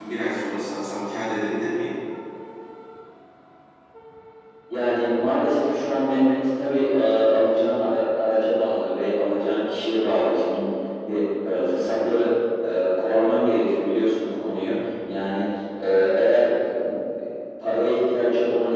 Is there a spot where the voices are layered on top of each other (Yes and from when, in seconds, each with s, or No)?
No